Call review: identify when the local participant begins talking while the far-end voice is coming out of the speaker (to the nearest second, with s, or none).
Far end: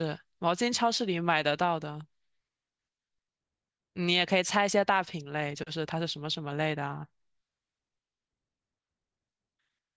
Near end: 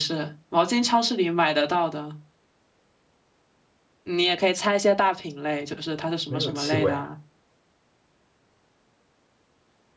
6 s